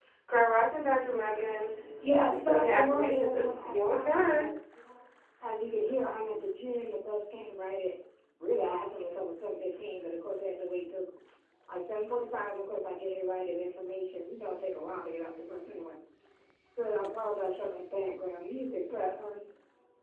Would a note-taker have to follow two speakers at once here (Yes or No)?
Yes